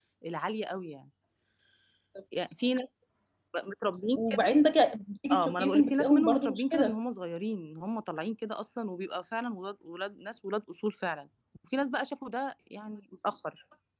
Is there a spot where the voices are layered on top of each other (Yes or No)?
Yes